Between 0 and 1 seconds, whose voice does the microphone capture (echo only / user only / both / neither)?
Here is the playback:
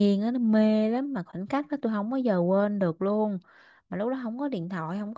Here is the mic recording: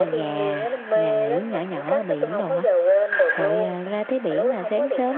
both